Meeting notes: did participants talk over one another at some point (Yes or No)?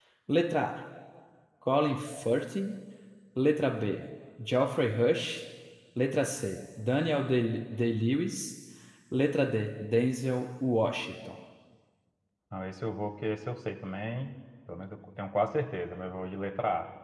No